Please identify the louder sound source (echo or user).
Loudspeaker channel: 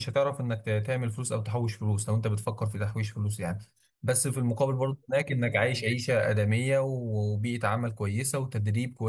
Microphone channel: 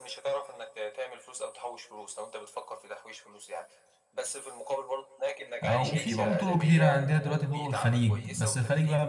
user